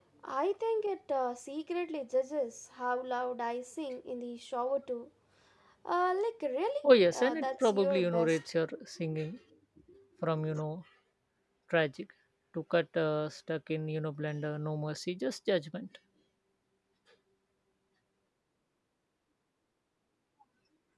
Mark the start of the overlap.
7.1 s

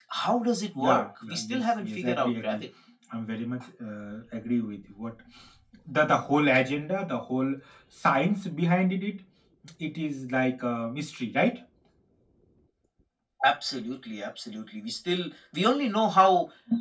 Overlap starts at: 0.7 s

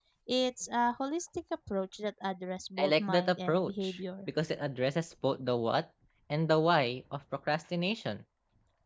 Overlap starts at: 2.8 s

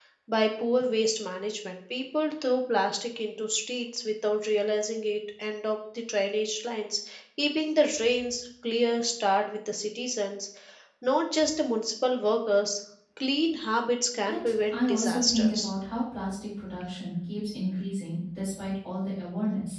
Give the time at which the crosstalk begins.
14.3 s

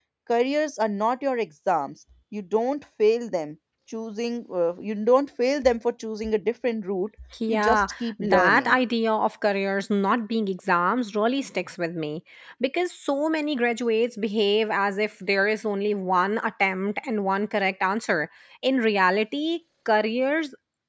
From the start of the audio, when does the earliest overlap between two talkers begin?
7.5 s

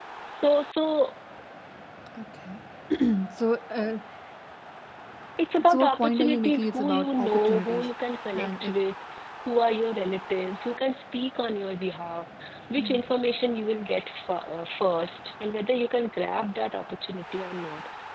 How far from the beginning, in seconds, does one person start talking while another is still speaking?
5.7 s

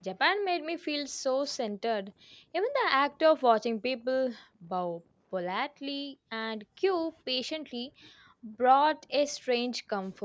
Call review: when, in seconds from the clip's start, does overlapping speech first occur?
none

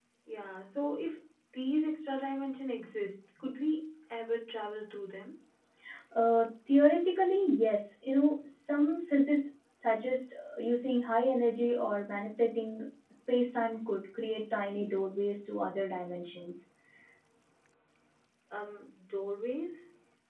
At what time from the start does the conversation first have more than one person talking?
none

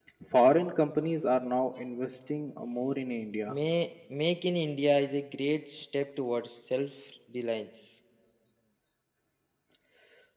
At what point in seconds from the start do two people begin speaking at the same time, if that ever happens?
none

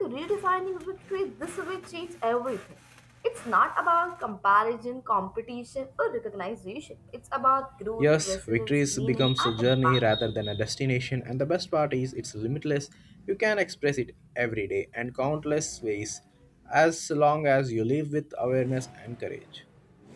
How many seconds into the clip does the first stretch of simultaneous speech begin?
8.0 s

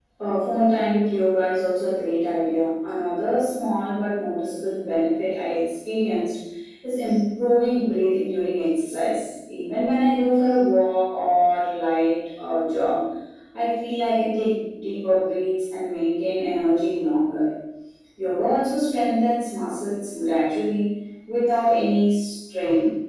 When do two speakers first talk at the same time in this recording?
none

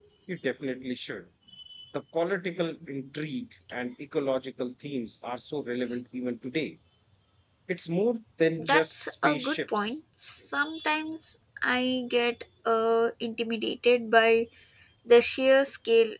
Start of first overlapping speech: 8.6 s

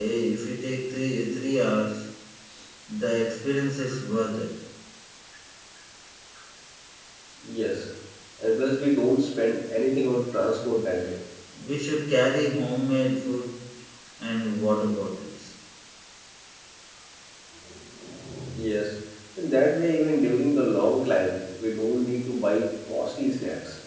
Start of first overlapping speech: none

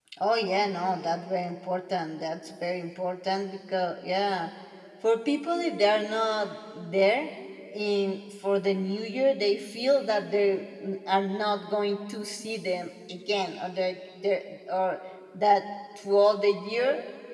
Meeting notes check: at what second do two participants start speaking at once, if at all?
none

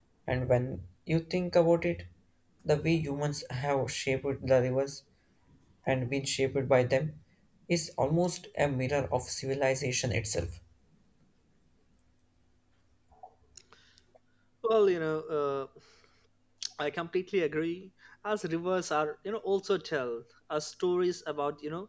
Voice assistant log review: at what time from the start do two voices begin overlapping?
none

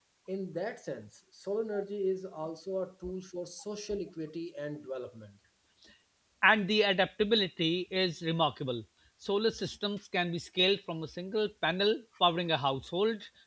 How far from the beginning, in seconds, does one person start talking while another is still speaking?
none

